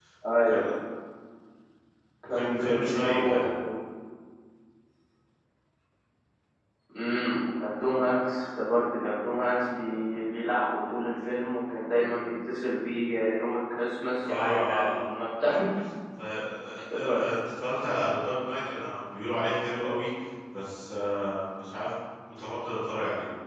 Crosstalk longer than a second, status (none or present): present